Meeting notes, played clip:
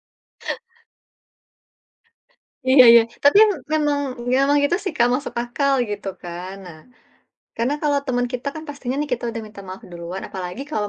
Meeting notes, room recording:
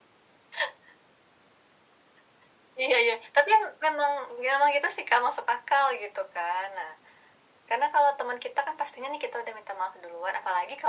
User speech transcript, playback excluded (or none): none